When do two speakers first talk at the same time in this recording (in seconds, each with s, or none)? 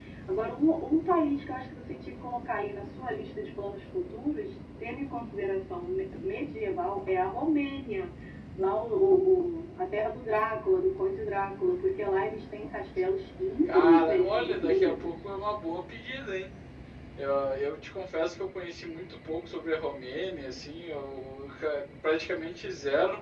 13.6 s